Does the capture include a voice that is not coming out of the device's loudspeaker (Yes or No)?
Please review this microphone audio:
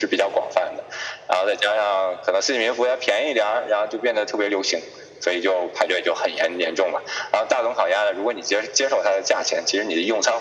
No